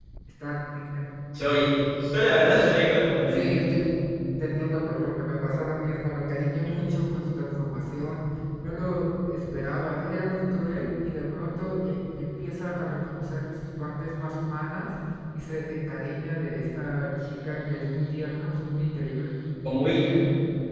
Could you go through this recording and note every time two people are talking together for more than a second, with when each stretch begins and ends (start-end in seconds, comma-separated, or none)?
none